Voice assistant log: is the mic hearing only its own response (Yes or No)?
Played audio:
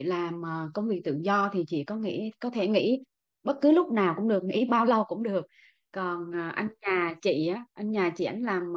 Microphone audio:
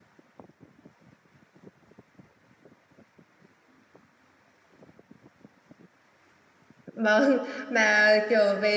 No